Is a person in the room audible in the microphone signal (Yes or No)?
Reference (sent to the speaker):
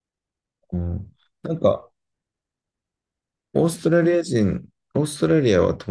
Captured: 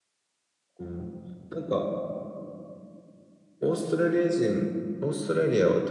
No